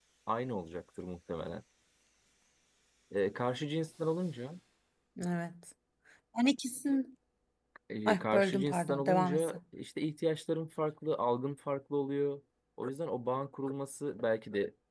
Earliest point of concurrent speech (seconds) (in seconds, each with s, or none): 8.0 s